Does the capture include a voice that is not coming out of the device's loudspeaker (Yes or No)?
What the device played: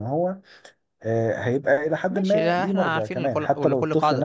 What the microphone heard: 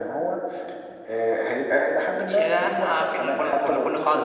No